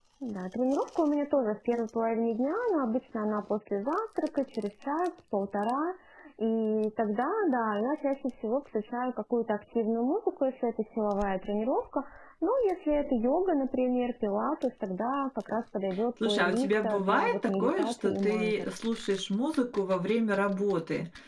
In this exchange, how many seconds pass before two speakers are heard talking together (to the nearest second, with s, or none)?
16 s